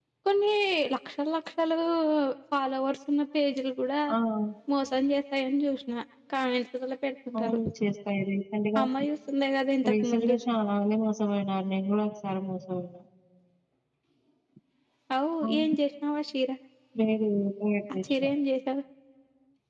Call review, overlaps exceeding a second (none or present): none